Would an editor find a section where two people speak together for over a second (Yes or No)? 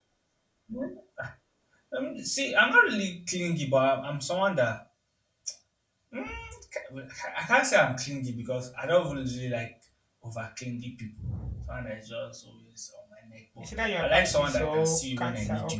Yes